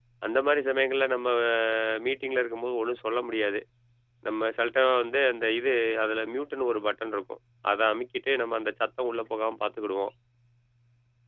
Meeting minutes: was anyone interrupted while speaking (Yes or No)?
No